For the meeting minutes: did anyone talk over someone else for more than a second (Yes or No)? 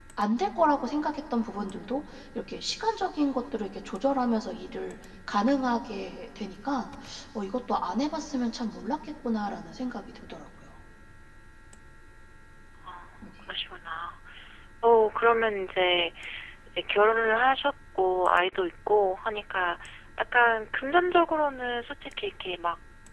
No